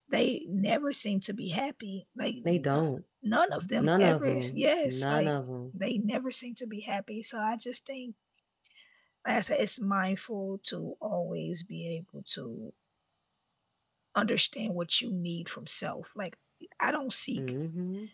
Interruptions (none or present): present